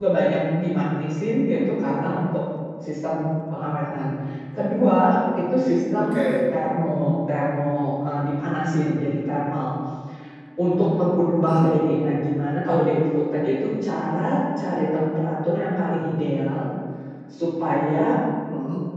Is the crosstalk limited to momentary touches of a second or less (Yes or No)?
Yes